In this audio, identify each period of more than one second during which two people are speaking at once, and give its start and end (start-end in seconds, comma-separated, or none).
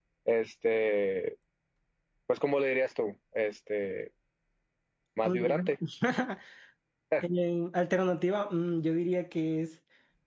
none